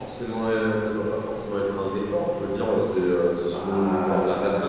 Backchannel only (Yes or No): Yes